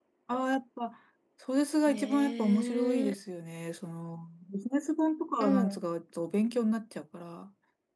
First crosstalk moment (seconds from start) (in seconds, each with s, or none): 1.9 s